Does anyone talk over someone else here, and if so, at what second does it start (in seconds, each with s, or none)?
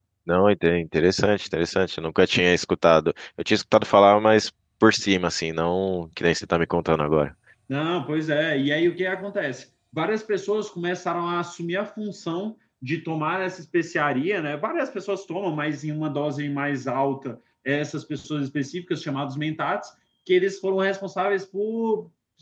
none